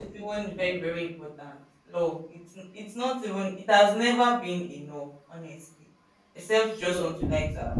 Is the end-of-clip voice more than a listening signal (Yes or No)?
No